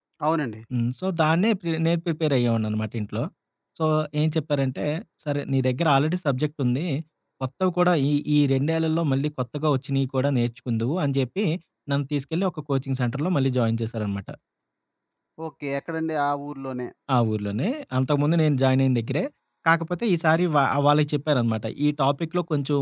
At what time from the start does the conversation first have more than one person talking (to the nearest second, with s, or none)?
none